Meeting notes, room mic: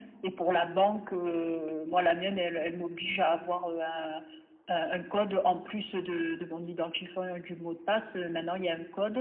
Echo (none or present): present